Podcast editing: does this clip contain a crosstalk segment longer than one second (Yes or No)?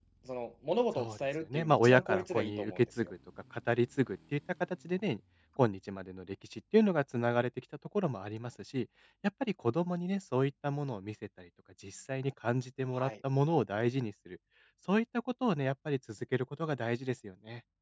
Yes